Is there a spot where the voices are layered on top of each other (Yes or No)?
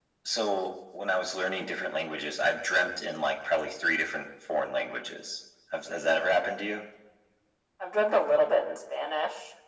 No